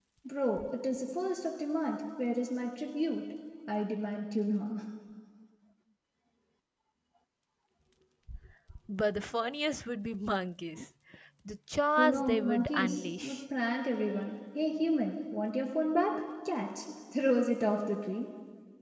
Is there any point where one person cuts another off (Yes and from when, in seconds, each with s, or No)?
Yes, from 12.0 s